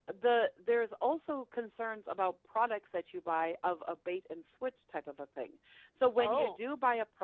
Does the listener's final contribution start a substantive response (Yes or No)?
No